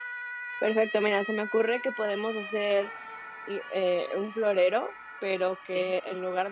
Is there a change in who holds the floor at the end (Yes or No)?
No